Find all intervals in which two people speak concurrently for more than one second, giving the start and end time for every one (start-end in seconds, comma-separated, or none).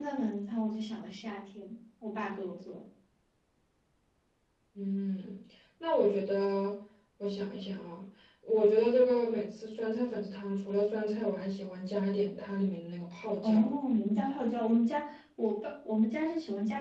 none